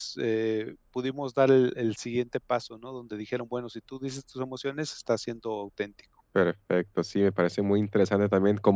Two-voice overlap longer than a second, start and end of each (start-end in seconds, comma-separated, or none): none